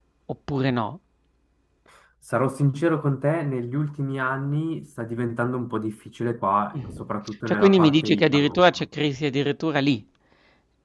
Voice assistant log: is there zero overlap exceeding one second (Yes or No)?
No